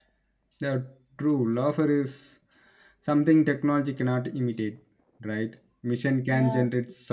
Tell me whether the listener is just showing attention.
Yes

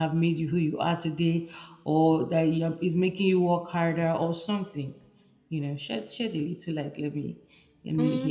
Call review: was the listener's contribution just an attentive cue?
No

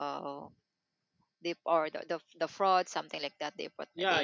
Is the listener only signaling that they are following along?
No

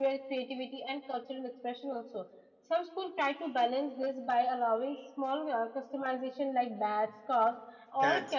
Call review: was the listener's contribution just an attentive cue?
Yes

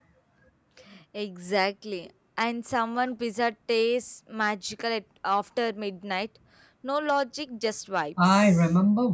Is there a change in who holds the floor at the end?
Yes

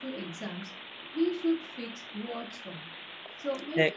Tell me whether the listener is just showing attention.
Yes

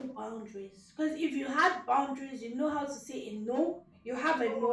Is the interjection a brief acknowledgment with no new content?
Yes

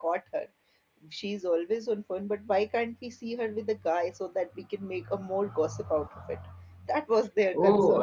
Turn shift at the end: Yes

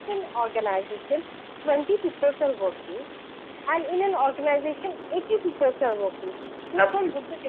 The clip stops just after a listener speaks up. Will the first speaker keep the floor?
Yes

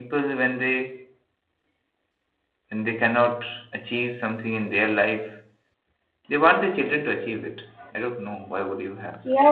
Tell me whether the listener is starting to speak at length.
Yes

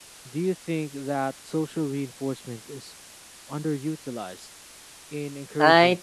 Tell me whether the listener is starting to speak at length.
Yes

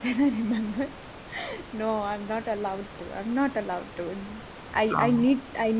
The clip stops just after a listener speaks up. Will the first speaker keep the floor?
Yes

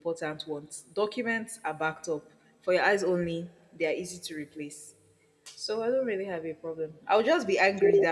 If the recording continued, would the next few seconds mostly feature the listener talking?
No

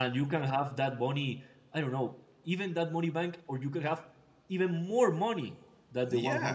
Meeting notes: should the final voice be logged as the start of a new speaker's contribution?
Yes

